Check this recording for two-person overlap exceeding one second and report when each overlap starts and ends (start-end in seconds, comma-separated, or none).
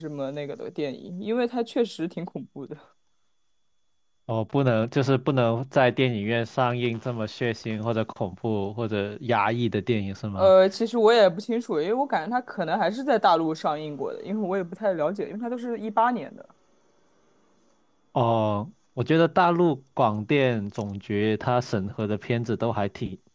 none